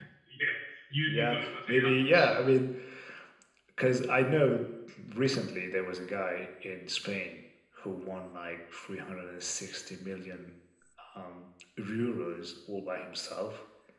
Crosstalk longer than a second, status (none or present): present